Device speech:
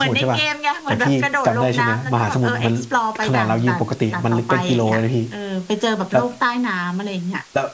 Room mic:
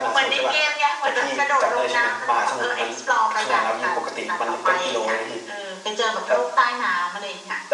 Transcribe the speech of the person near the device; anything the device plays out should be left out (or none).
none